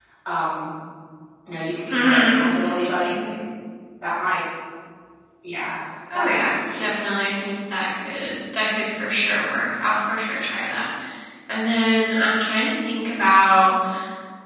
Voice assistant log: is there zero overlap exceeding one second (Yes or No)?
No